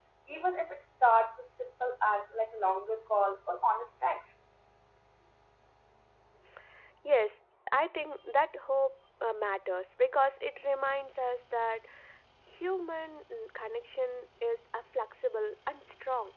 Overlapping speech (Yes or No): No